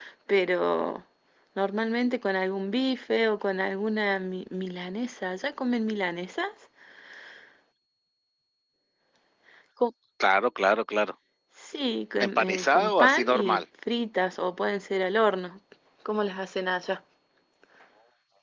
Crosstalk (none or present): present